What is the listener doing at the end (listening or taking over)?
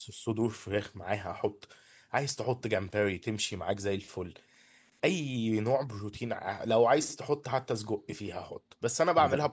listening